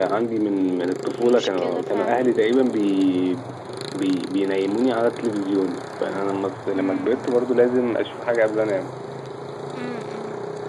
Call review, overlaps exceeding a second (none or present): present